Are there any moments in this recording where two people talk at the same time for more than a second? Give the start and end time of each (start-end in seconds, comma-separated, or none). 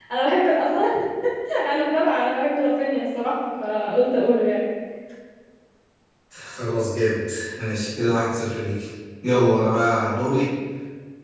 none